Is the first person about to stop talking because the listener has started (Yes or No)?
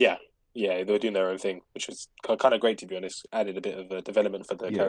Yes